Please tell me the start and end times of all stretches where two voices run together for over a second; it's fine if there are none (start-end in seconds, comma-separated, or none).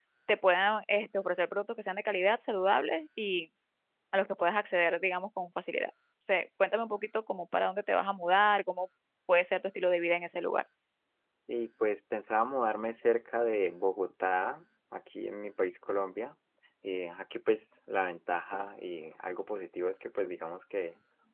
none